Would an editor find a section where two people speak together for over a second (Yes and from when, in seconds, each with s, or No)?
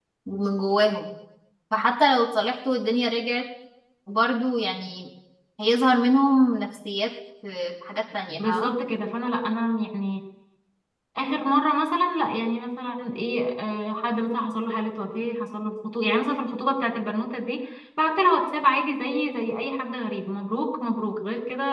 No